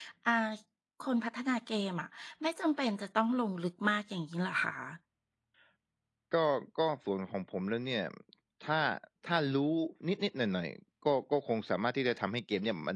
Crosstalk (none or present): none